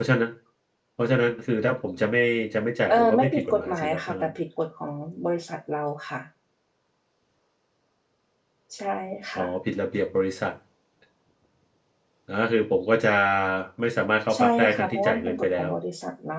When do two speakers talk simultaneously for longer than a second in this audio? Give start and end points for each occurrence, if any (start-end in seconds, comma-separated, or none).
2.9-4.3, 14.3-15.7